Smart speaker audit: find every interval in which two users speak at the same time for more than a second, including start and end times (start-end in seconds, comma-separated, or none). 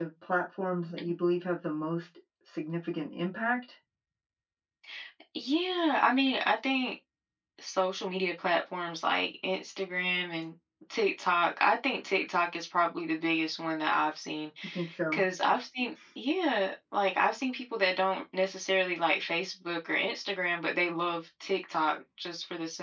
none